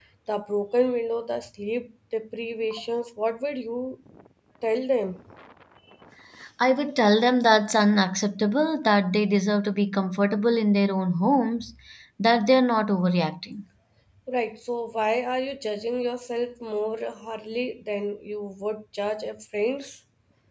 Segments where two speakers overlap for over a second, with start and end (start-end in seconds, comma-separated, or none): none